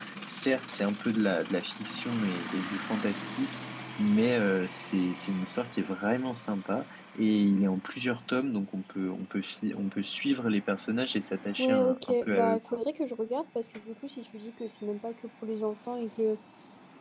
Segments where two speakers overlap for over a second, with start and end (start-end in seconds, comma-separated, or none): 11.6-12.8